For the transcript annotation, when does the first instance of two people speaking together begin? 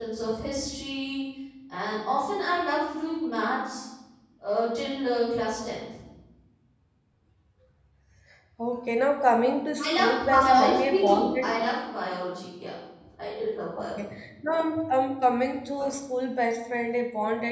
9.8 s

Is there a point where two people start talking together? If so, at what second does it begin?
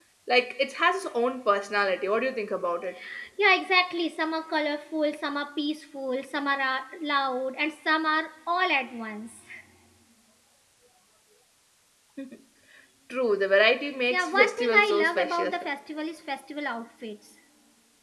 14.1 s

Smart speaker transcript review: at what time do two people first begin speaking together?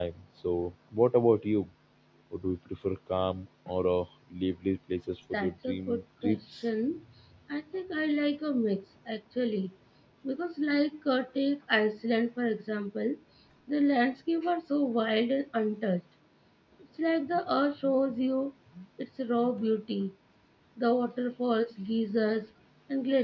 5.3 s

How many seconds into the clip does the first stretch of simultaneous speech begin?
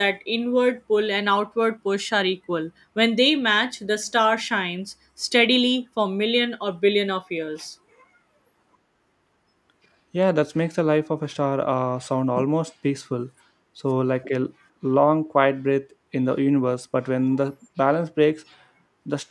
none

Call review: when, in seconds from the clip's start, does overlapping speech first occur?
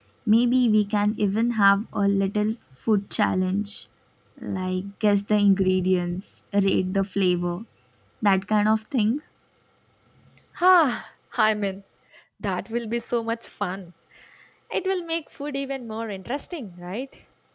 none

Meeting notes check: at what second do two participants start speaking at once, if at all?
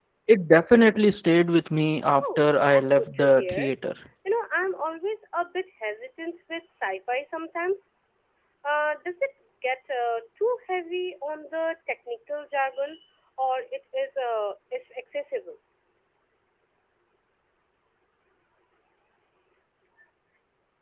2.2 s

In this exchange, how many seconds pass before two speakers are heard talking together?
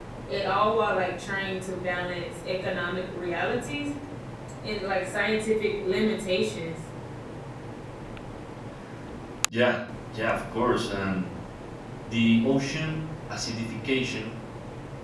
none

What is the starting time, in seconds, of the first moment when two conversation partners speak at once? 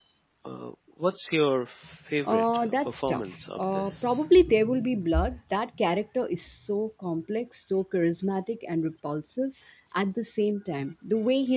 2.2 s

